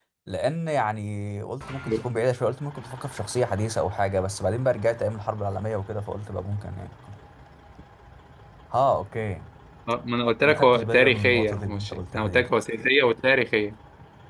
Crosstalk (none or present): present